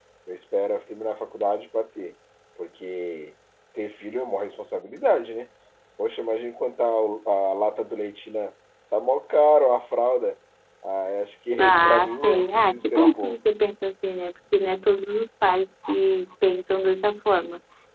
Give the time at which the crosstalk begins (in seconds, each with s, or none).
11.6 s